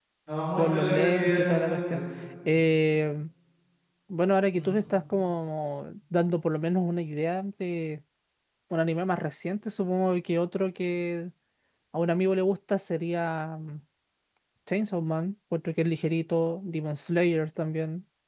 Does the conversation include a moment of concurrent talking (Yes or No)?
Yes